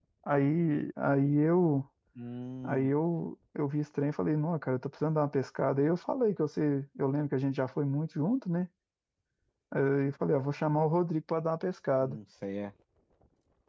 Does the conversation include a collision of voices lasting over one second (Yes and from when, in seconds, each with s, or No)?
No